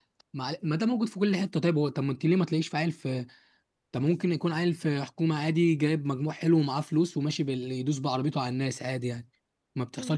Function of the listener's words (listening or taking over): taking over